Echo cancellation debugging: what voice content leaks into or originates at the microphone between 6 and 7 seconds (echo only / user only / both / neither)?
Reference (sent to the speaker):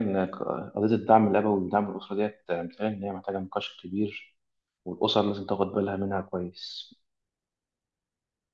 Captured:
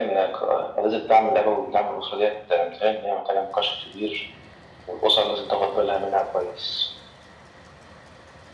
echo only